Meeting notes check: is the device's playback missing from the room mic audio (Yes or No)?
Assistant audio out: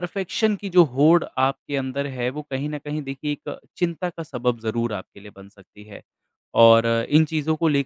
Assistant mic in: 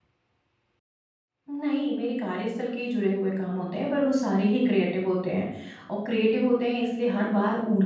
Yes